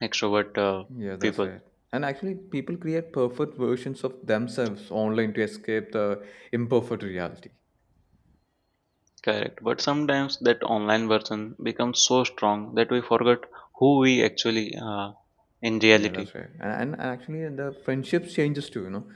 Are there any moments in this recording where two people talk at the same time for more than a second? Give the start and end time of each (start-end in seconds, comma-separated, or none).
none